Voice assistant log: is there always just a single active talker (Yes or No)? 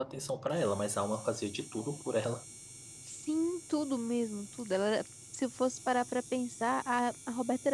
Yes